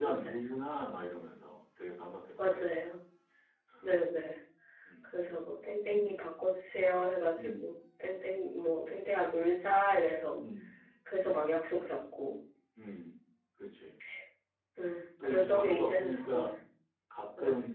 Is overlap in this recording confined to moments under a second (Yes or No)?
No